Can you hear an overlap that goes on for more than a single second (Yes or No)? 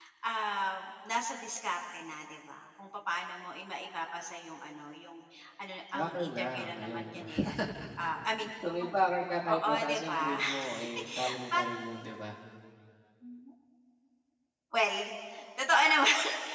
Yes